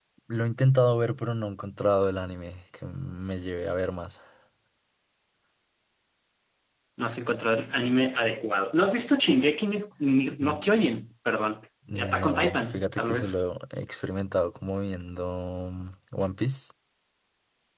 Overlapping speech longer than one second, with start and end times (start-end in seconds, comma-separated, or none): 12.0-13.4